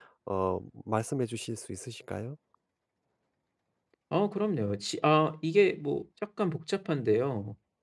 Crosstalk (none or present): none